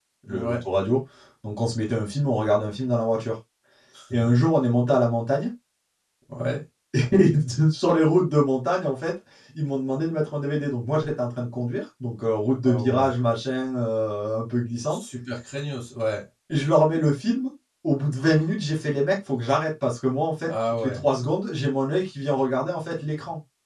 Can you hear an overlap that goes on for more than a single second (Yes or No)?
No